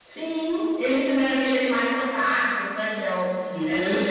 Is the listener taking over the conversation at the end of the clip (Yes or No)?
No